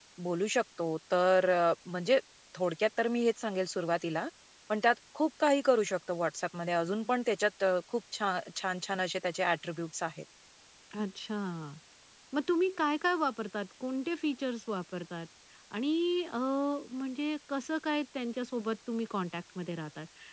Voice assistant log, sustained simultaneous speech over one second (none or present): none